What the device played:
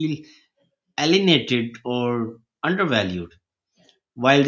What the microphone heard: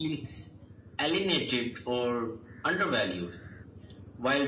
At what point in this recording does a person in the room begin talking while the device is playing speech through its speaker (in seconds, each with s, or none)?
none